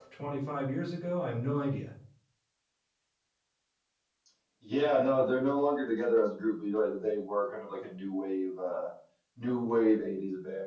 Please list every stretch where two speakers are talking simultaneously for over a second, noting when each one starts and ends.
none

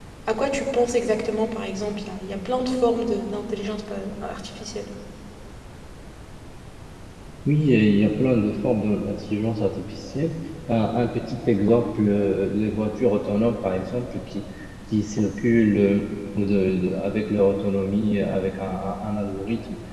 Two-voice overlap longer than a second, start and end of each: none

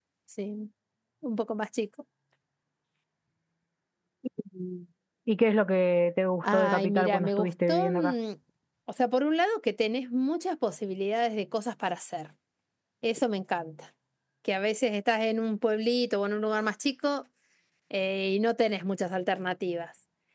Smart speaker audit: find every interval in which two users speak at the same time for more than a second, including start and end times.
6.4-8.1

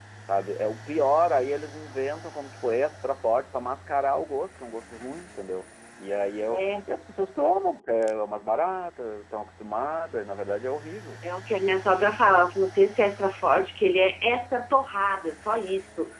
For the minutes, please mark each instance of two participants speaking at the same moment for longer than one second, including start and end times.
none

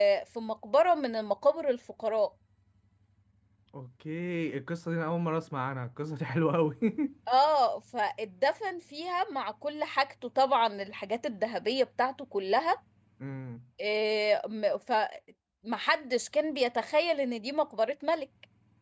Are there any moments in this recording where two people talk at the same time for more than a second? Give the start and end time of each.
none

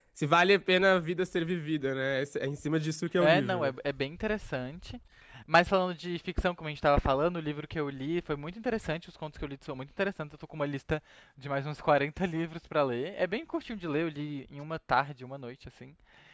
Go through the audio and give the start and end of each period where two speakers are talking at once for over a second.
none

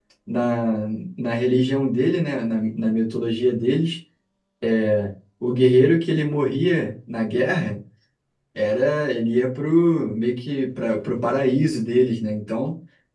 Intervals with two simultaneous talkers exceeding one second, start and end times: none

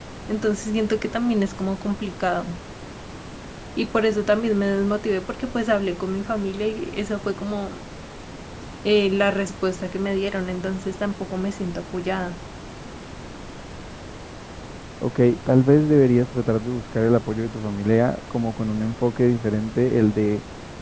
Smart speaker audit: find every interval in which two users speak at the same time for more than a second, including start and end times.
none

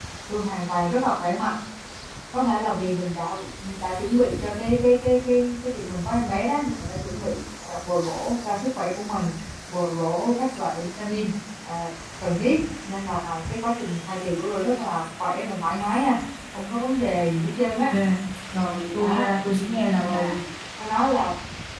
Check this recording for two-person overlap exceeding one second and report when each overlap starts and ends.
none

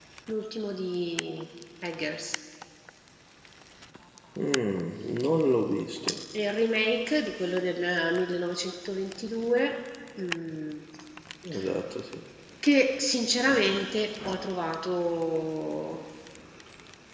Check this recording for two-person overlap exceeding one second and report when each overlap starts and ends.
none

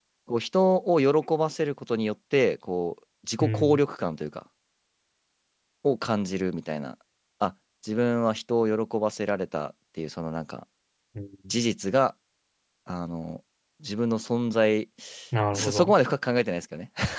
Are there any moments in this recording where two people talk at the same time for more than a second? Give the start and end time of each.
none

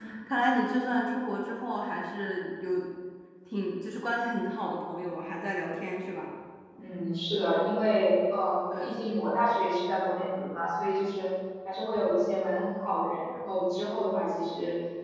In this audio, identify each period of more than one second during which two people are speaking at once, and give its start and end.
none

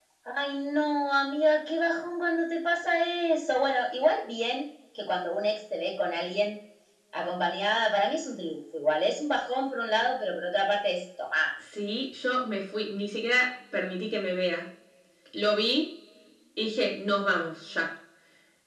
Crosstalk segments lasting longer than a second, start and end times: none

